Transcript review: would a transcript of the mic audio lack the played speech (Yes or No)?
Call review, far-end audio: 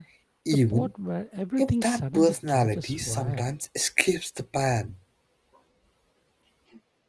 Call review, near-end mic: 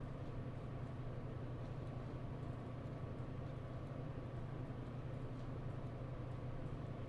Yes